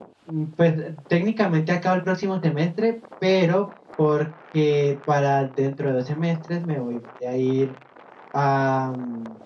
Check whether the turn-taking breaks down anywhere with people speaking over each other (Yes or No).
No